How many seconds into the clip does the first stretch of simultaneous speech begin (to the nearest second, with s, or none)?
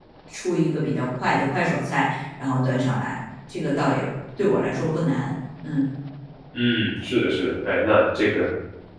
none